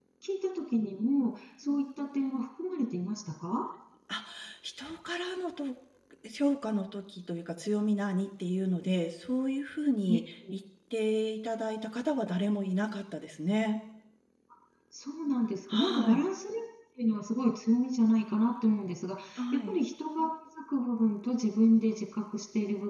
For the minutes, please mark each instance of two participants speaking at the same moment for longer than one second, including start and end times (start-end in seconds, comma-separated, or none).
none